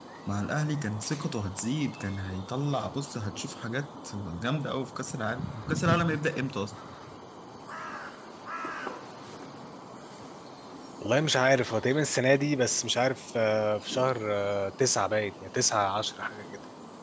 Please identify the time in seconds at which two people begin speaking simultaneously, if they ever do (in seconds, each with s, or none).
none